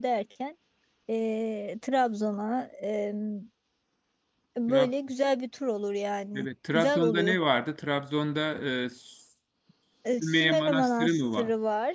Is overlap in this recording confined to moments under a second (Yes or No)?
No